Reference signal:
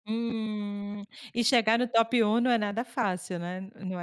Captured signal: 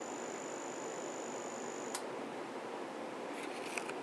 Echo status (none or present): none